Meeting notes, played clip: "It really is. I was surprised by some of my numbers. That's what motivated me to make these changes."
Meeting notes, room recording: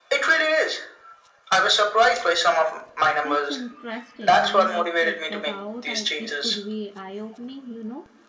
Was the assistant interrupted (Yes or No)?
Yes